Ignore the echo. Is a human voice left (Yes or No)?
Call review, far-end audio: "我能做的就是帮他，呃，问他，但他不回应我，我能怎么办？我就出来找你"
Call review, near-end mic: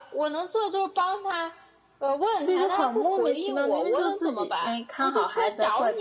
Yes